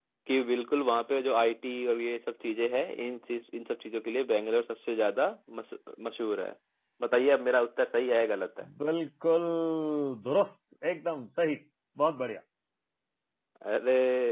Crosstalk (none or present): none